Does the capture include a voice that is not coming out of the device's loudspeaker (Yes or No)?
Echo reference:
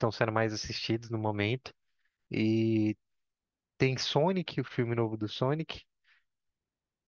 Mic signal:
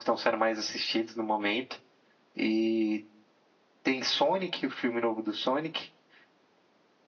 No